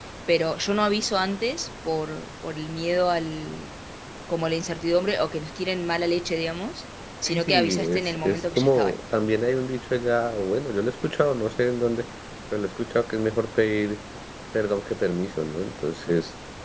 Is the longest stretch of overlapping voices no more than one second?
No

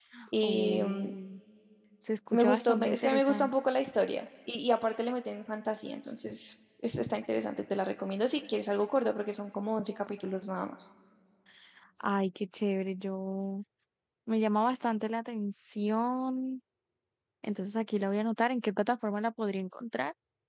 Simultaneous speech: Yes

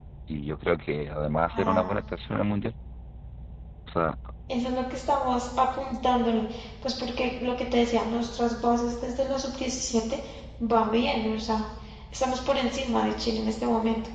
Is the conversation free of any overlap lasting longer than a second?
Yes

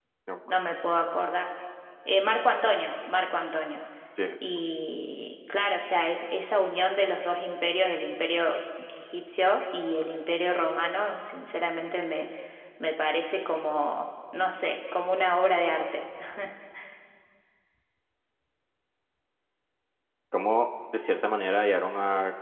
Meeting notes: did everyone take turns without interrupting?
Yes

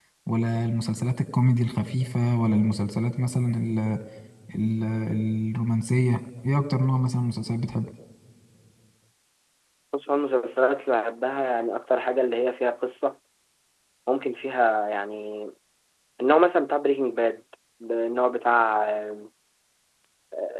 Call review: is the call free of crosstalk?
Yes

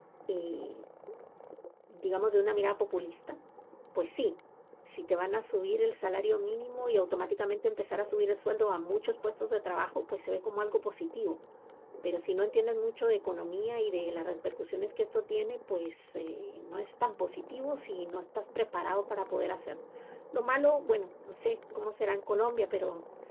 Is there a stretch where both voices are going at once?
No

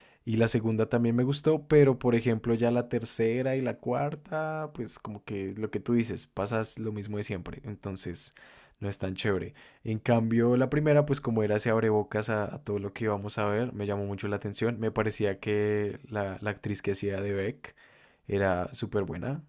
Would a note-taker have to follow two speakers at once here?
No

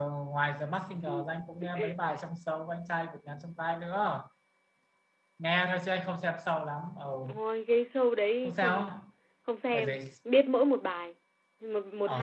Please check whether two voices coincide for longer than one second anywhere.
No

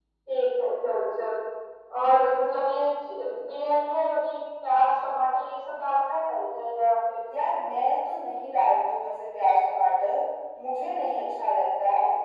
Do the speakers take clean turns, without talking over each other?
Yes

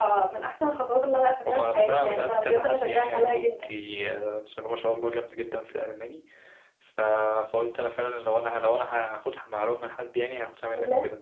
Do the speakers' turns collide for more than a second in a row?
Yes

